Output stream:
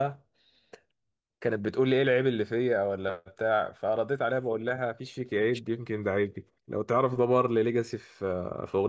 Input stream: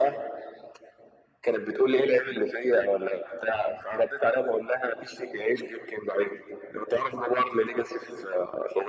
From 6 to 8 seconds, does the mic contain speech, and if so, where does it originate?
echo only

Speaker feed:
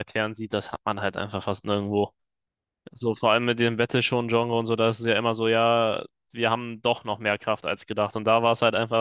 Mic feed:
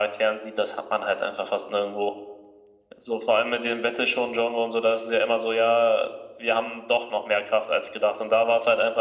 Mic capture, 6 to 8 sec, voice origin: echo only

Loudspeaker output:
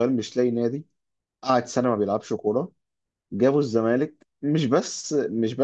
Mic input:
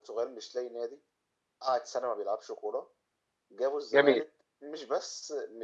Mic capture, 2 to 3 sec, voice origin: echo only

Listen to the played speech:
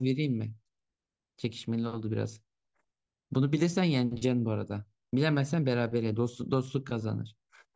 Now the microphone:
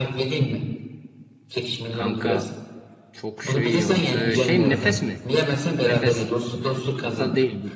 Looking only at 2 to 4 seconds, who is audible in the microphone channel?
both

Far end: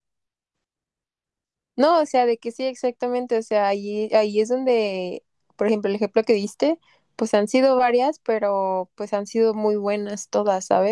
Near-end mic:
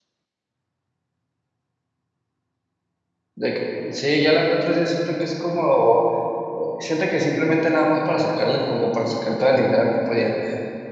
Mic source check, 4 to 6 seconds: user only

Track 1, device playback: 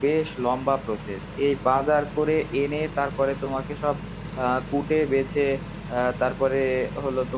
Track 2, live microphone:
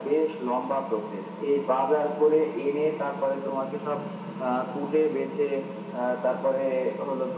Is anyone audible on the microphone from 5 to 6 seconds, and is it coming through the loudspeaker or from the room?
echo only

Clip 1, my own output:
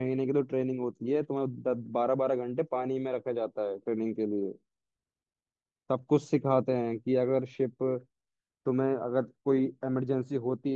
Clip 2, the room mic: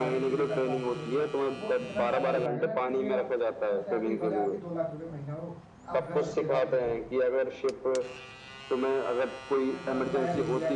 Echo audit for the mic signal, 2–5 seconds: both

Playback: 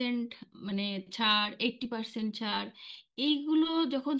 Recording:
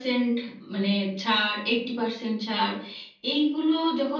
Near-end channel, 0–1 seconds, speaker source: echo only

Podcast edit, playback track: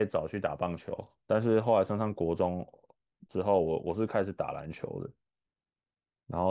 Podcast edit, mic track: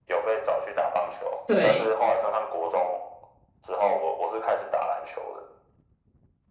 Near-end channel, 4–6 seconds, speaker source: echo only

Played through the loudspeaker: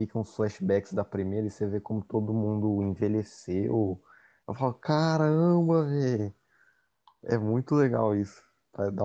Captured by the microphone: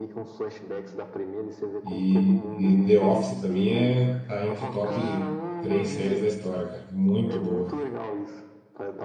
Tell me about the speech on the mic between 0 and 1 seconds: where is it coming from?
echo only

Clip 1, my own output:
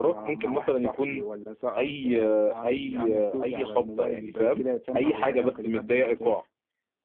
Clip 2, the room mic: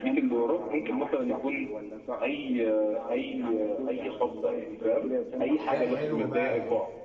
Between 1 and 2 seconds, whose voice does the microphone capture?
echo only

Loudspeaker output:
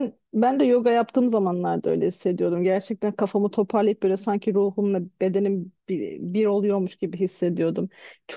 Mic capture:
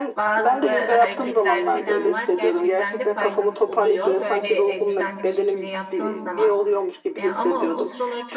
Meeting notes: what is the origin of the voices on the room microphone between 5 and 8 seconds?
both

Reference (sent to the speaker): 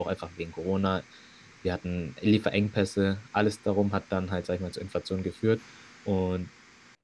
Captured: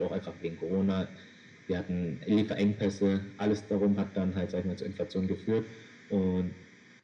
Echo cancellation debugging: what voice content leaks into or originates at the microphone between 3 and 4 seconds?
echo only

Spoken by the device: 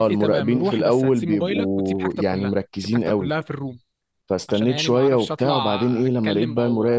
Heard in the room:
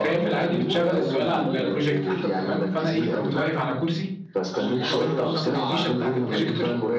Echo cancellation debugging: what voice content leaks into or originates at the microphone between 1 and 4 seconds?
both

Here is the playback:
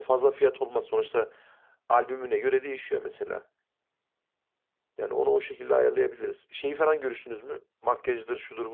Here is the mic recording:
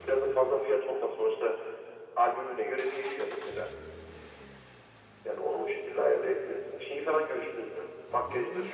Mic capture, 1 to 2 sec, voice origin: echo only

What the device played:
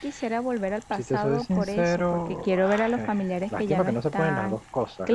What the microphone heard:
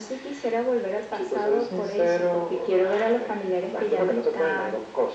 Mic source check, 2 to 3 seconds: echo only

